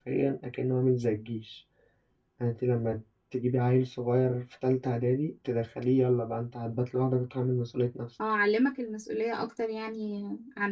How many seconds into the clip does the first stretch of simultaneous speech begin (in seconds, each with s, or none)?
none